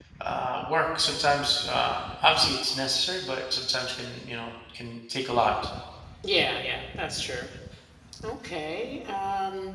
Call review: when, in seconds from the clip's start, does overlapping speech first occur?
none

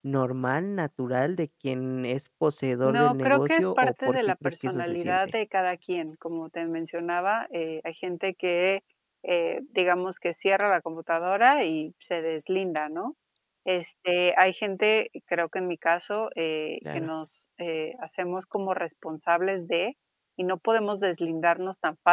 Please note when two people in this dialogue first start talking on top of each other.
2.8 s

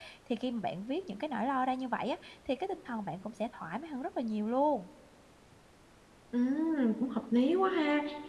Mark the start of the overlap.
none

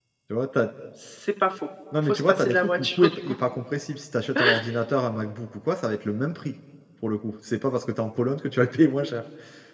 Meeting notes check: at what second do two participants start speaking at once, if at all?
1.9 s

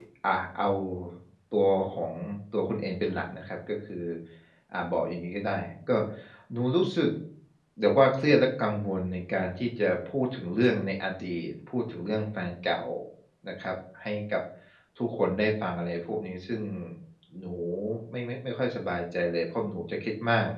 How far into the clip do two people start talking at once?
none

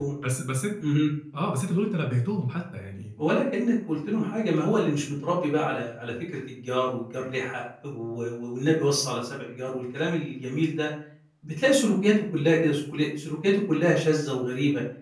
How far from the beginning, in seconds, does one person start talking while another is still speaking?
none

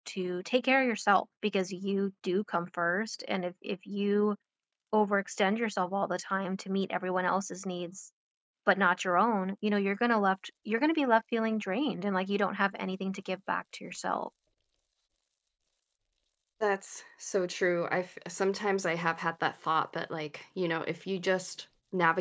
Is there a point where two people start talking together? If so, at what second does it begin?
none

